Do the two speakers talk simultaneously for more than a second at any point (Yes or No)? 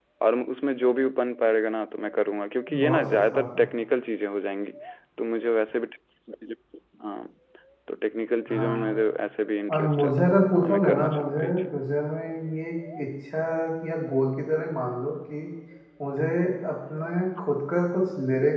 Yes